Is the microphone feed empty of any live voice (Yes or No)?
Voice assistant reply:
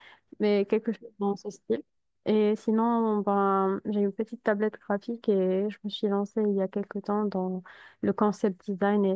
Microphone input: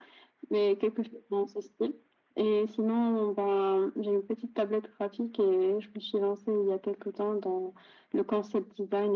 Yes